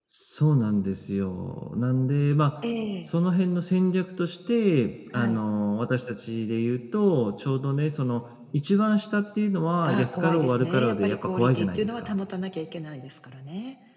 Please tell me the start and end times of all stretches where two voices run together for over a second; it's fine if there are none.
9.9-12.1

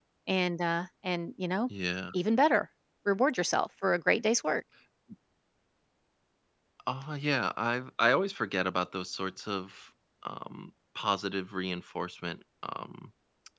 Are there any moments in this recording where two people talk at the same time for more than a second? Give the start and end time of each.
none

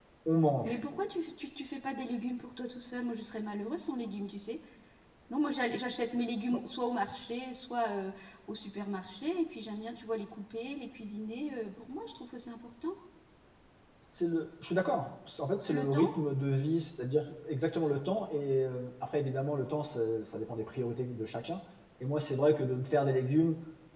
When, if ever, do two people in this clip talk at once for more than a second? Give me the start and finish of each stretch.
none

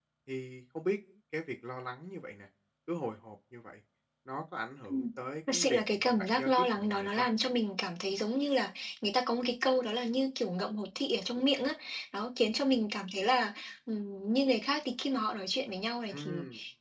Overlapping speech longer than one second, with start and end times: 5.5-7.2

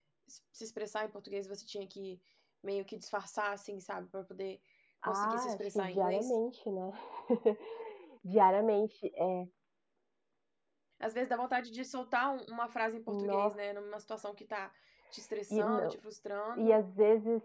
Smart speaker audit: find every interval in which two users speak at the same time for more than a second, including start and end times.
5.0-6.3

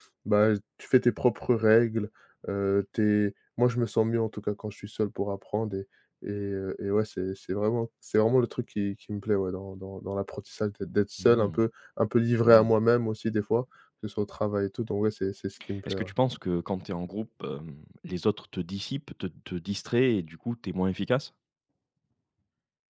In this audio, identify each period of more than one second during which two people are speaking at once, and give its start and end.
none

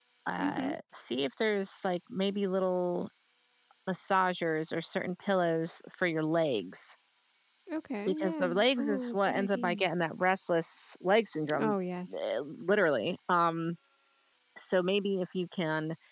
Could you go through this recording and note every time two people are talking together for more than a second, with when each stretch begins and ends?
8.1-9.8

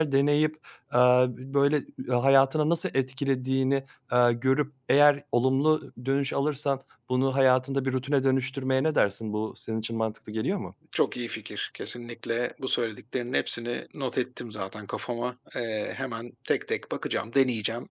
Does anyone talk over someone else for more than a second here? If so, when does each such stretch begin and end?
none

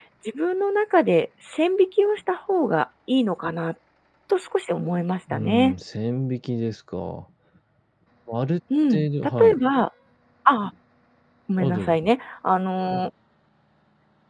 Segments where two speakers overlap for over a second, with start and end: none

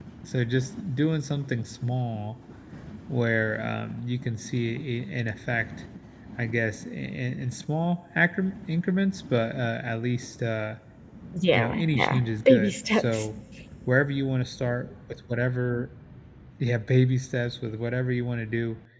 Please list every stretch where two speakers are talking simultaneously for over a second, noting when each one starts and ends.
11.5-13.2

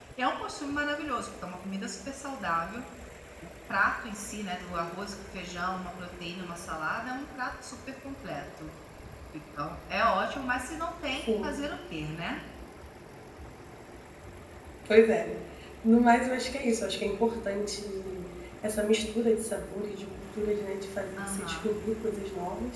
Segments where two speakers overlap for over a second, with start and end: none

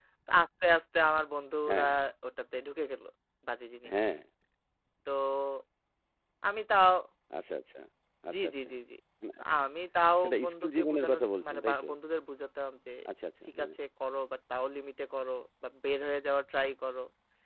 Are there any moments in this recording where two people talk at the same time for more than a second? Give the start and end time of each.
10.2-11.9

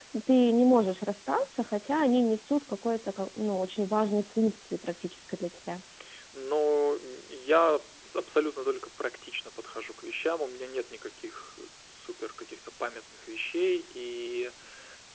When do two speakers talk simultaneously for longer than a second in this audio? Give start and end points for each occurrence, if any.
none

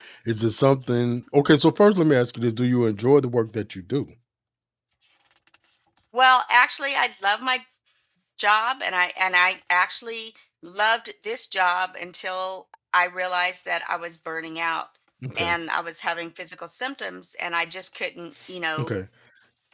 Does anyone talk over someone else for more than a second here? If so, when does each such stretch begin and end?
none

